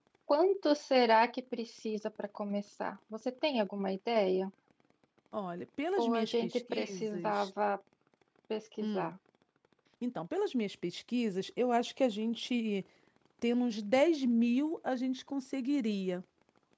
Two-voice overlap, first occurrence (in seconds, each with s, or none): 6.0 s